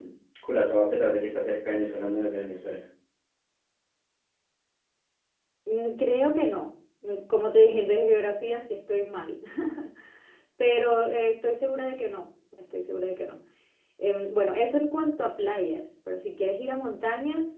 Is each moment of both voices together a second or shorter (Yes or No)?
Yes